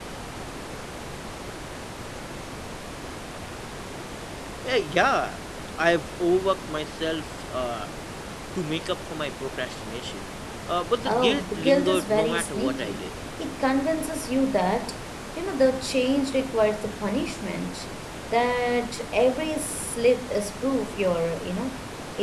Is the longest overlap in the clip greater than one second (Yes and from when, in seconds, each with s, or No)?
Yes, from 11.0 s